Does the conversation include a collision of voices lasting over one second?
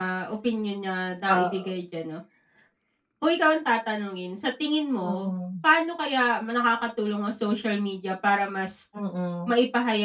No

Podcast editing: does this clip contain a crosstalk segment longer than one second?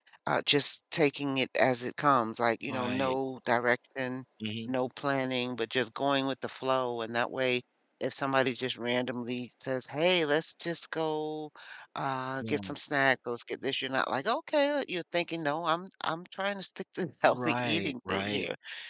Yes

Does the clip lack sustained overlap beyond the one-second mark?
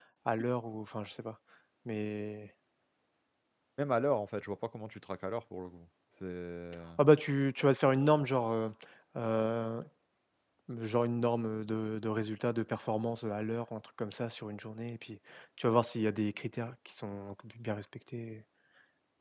Yes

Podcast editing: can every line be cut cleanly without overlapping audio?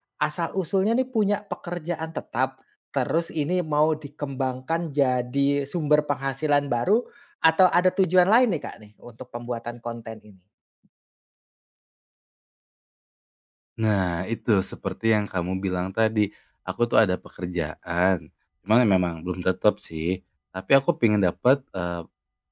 Yes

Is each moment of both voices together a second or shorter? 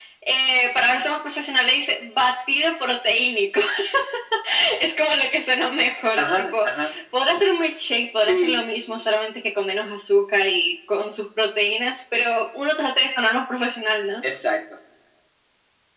Yes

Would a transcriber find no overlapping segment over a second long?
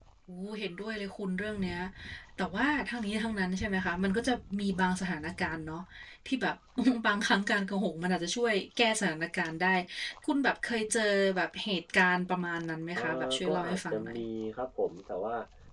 No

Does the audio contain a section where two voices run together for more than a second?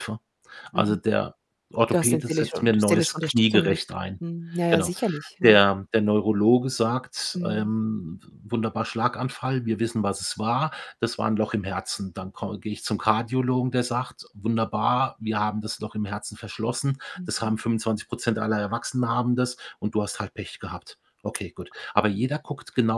Yes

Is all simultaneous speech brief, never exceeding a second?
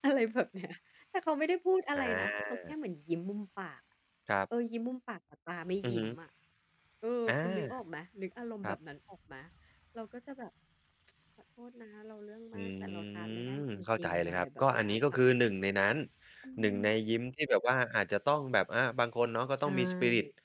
No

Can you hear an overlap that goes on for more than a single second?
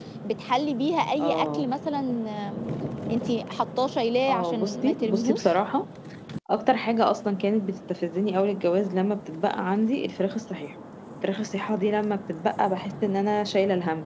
Yes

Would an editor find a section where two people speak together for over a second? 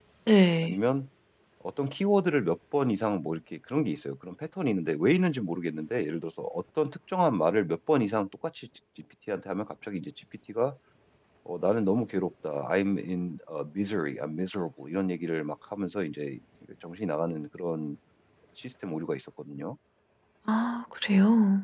No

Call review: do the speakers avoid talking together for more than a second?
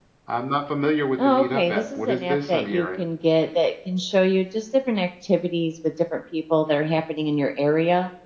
No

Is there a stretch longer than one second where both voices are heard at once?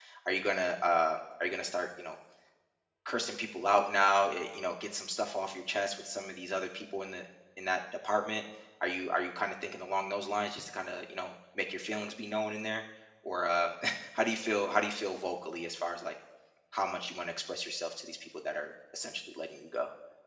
No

